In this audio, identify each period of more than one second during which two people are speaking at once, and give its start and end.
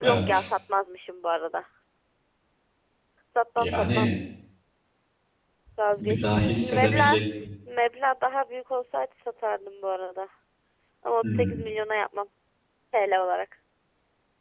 6.0-7.2

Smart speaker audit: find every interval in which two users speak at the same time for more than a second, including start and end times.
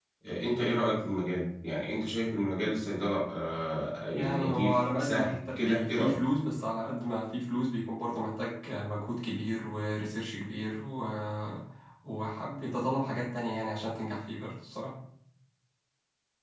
4.1-6.2

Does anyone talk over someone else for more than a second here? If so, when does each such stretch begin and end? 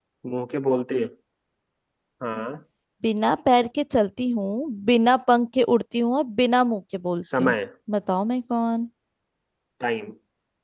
none

